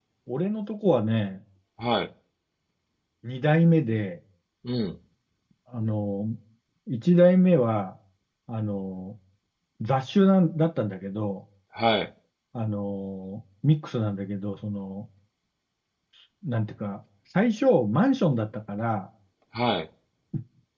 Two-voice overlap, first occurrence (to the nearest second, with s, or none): none